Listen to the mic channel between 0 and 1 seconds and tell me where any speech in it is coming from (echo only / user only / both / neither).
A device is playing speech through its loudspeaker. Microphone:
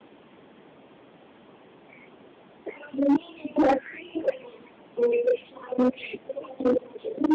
neither